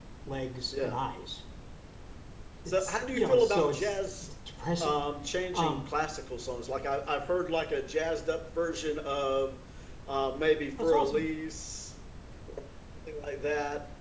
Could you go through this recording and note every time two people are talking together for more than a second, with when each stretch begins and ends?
2.7-4.3

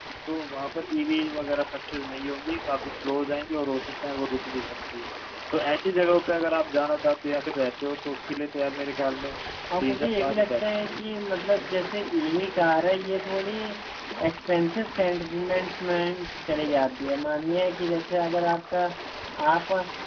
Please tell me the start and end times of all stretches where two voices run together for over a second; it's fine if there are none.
9.8-11.1

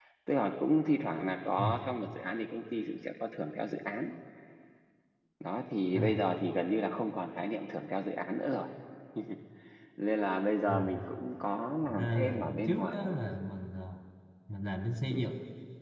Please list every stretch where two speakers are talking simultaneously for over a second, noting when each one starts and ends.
11.8-13.1

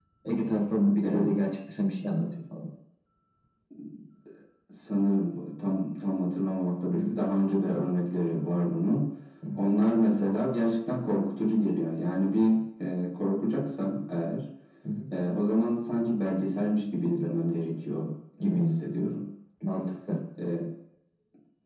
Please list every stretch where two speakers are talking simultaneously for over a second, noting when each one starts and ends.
none

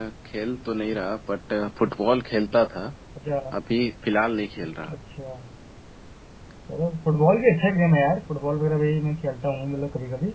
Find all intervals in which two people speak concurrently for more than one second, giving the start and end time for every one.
none

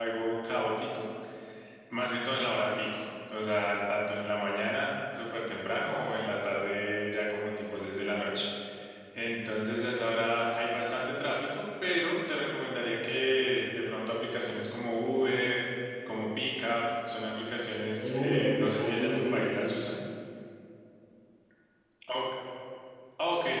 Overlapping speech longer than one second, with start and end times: 18.0-19.7

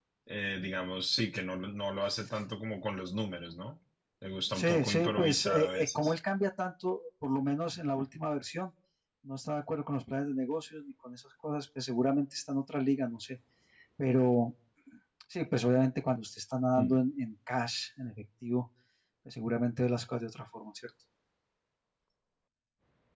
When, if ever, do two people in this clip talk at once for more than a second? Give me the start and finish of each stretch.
4.5-6.1

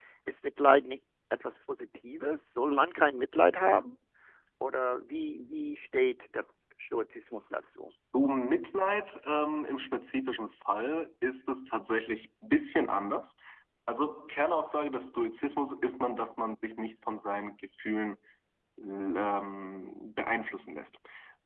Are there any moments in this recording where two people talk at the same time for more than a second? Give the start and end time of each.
none

